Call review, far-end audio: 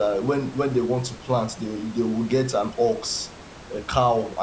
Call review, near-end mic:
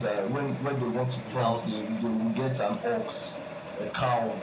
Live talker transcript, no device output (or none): without